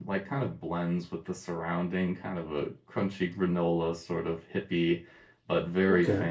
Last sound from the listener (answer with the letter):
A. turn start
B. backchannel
B